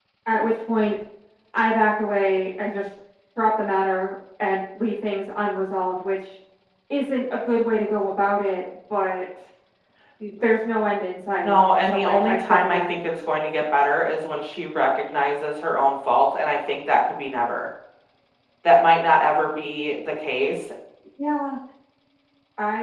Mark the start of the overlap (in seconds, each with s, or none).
11.4 s